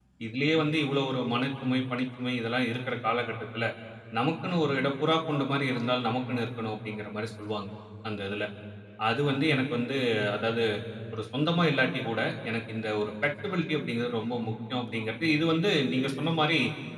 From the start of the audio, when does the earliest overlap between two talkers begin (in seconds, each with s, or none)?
none